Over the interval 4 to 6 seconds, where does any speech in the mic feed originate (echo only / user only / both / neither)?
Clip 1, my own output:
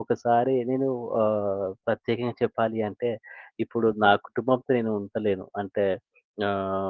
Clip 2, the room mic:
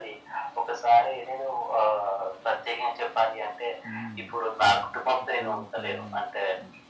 both